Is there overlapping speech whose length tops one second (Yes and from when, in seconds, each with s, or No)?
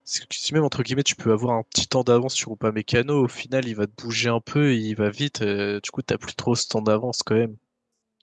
No